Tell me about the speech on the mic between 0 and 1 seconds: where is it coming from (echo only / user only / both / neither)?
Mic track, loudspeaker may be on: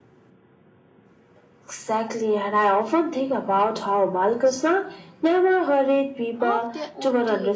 neither